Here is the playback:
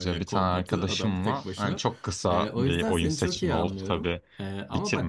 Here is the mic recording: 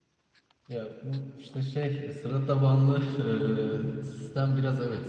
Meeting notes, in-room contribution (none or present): present